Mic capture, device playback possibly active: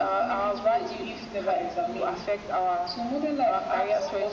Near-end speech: none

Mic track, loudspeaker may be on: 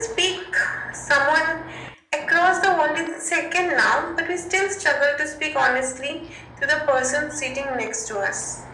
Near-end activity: none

